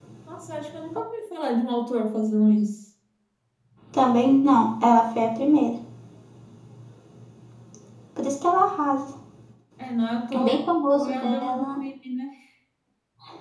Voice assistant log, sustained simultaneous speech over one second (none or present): present